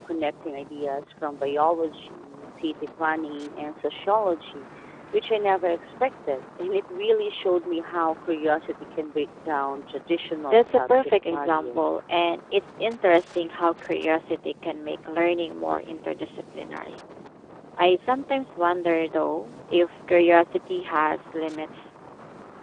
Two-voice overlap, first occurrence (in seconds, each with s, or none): 10.5 s